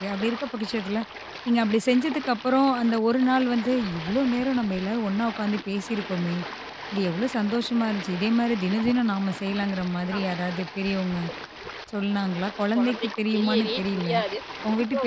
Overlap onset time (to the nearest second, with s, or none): 13 s